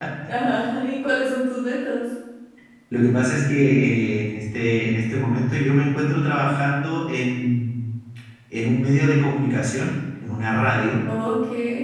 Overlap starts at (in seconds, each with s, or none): none